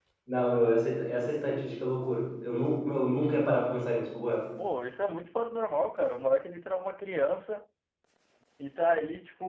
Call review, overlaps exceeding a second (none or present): none